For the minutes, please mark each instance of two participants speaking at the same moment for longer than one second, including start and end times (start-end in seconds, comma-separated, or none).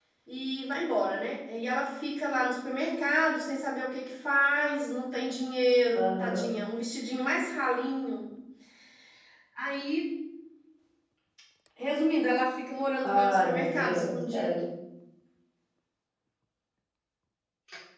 13.0-14.6